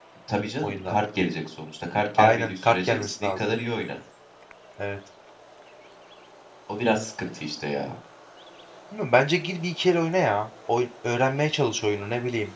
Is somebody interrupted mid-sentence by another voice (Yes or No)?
Yes